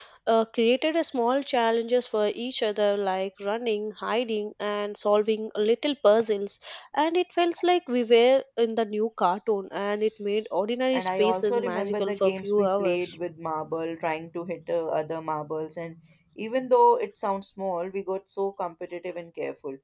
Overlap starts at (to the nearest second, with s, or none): 11 s